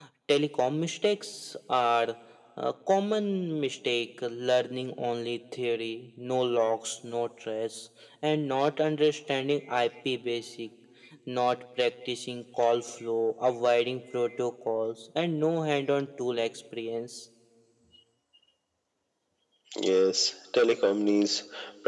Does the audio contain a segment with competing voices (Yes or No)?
No